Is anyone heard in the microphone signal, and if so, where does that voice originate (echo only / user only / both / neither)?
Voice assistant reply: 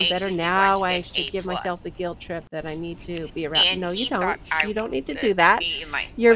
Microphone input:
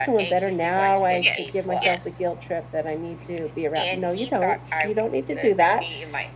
both